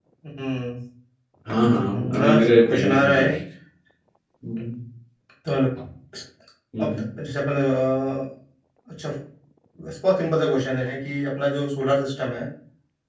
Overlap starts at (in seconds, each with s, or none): 1.6 s